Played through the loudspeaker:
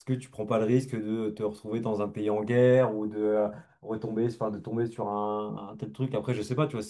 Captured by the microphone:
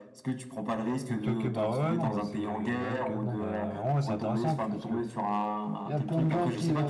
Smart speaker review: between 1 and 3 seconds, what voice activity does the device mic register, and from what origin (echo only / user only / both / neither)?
both